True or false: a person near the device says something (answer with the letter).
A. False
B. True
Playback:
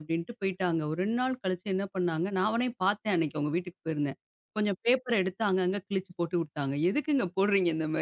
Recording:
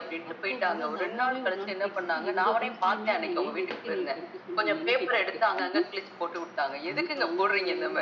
B